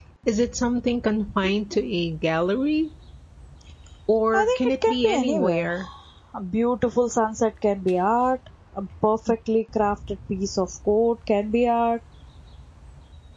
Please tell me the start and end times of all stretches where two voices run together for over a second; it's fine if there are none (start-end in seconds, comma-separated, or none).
4.3-5.7